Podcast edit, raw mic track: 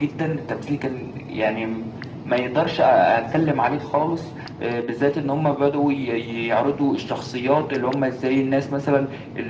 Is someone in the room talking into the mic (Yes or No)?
No